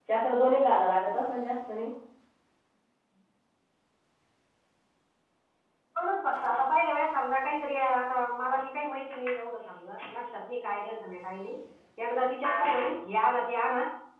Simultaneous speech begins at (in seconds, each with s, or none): none